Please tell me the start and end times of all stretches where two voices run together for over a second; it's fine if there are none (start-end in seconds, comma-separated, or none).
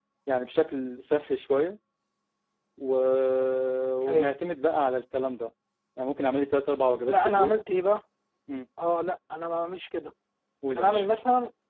none